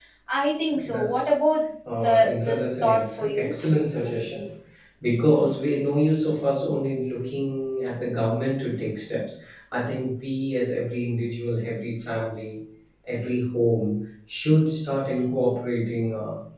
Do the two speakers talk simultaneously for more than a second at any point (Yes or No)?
Yes